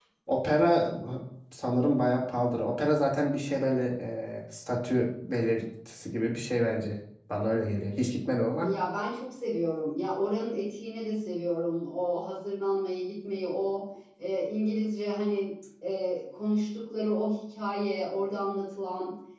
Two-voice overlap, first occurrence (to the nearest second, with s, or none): none